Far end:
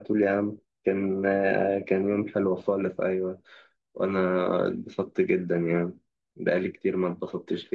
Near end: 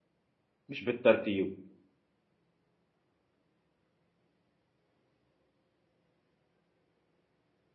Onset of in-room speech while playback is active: 1 s

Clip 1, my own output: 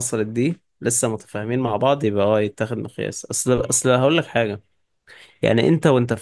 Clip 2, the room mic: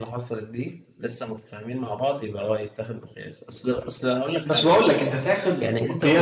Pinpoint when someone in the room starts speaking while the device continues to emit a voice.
4 s

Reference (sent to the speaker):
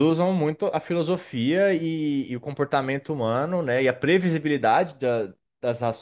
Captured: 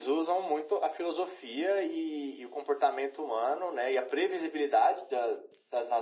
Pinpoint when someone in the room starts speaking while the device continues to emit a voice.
none

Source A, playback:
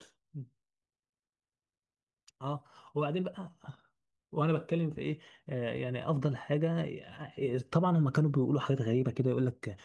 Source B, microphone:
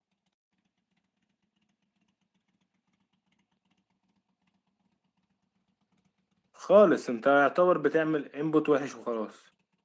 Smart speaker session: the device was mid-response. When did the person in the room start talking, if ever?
7 s

